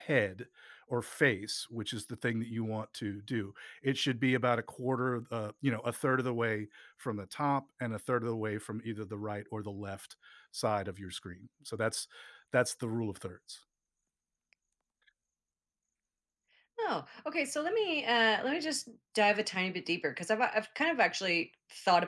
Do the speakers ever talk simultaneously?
No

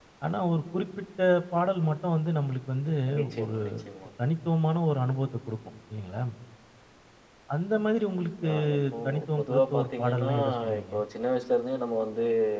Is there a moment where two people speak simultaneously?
Yes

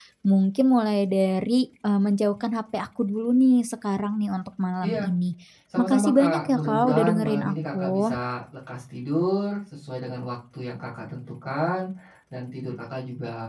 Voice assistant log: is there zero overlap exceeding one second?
No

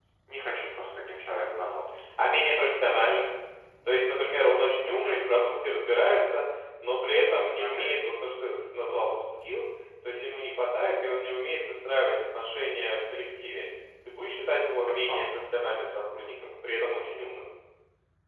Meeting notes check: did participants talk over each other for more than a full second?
No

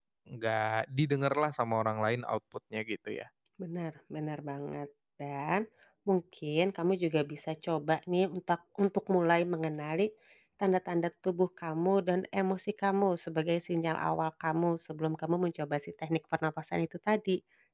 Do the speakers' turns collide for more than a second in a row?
No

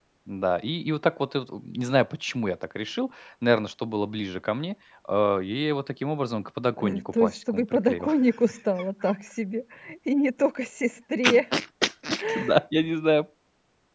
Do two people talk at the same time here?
Yes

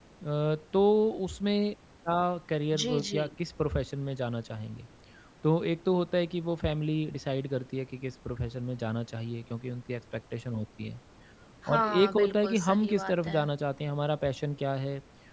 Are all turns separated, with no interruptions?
No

